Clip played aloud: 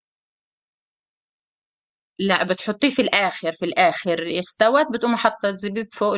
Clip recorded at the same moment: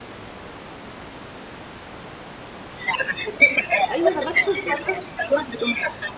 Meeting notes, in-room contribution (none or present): present